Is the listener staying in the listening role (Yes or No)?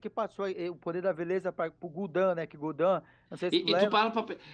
No